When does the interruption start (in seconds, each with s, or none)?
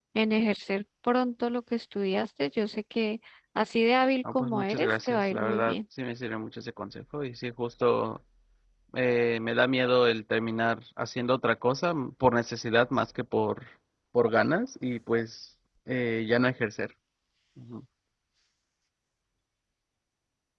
4.2 s